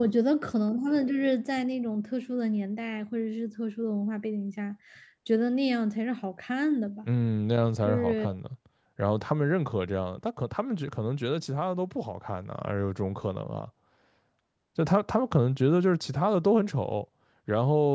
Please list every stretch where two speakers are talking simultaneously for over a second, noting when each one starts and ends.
none

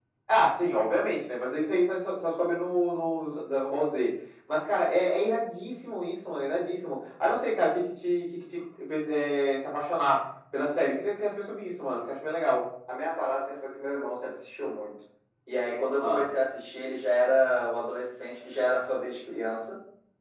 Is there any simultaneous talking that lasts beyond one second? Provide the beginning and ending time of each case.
none

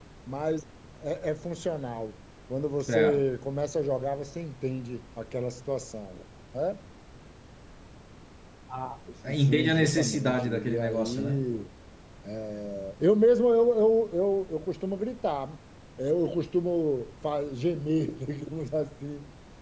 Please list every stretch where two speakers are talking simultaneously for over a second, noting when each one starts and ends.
9.2-11.4

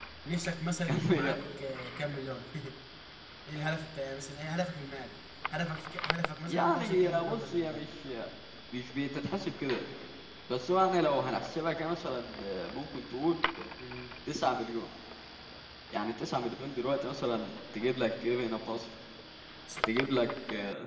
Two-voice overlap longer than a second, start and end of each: 6.5-7.9

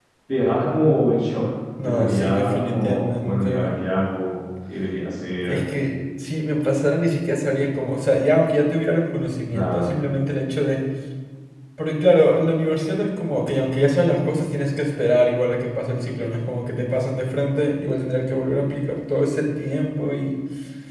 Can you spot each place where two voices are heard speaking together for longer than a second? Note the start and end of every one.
1.8-3.7

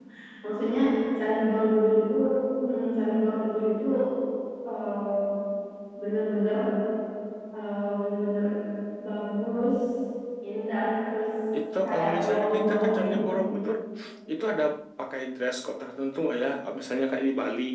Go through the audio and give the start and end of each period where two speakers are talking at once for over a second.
11.8-13.2

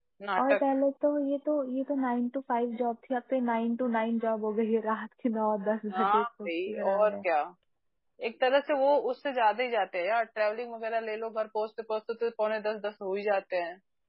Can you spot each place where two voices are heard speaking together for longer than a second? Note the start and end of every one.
5.9-7.2

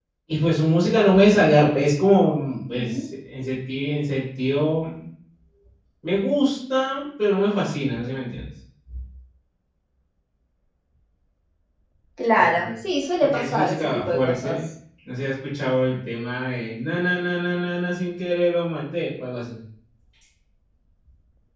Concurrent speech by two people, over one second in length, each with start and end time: 13.2-14.6

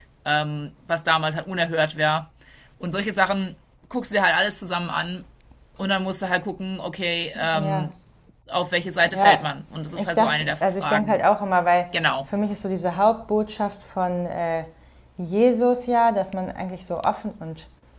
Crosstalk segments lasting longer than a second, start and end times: 10.0-11.2

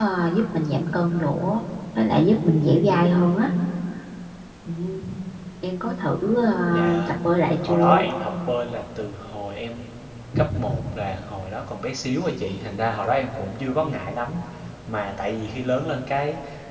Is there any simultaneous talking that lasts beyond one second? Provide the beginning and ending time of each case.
none

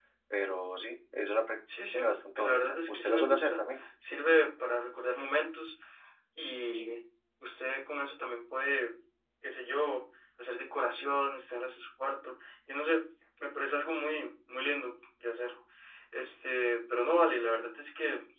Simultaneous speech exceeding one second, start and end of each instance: 2.4-3.6

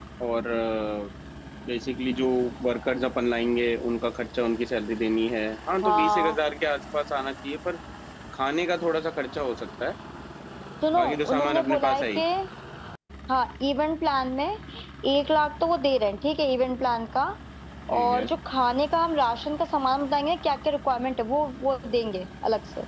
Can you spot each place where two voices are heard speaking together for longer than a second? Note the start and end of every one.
11.0-12.2

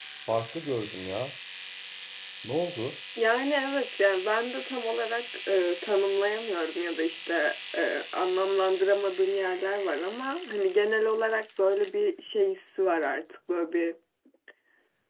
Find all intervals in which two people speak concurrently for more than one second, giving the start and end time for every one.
none

